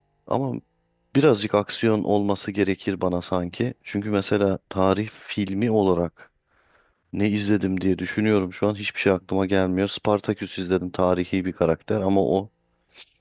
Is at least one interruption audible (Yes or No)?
No